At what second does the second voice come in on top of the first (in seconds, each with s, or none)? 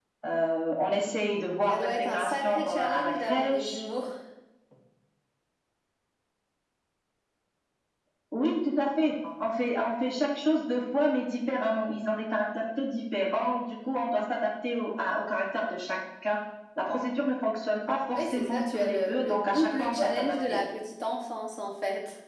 1.7 s